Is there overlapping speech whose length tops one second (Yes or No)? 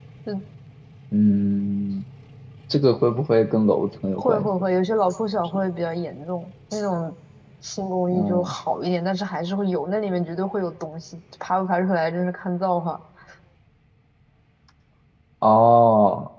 No